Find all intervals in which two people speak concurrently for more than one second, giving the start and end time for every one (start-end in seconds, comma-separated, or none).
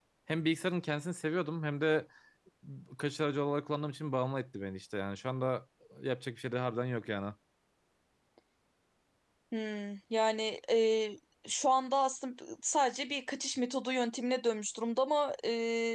none